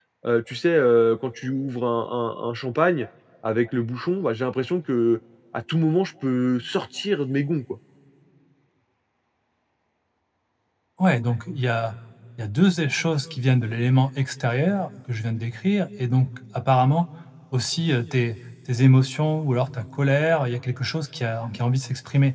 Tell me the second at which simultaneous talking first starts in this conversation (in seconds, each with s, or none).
none